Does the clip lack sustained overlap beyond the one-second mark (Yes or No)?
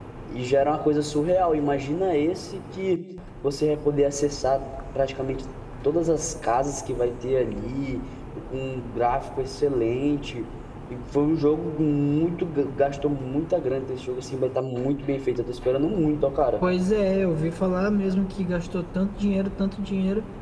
Yes